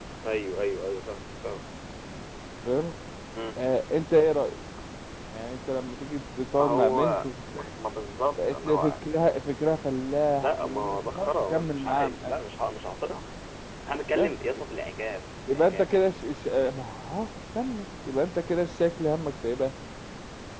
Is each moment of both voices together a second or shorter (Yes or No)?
No